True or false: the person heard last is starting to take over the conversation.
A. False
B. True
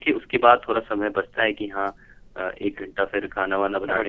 A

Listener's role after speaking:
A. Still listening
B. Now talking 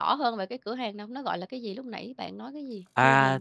B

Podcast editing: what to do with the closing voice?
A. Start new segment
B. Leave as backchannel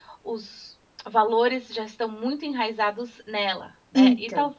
B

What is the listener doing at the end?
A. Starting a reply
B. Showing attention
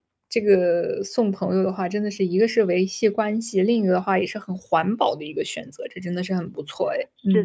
A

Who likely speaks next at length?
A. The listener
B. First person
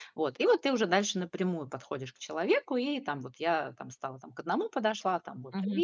A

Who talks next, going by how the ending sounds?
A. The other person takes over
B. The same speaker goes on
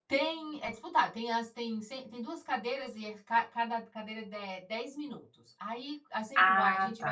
B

